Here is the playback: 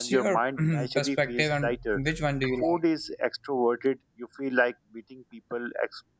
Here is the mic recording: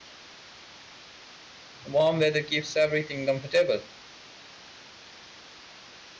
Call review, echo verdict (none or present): none